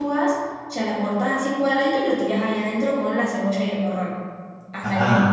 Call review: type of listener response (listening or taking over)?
taking over